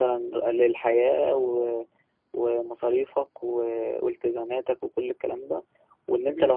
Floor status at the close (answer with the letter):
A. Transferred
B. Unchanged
B